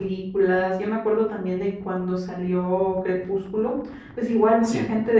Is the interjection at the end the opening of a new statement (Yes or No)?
No